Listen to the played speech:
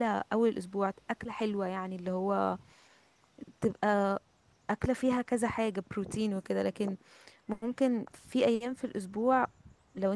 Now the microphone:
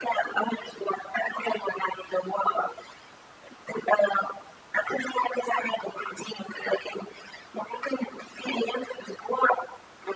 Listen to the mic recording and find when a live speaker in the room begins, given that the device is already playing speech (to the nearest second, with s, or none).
none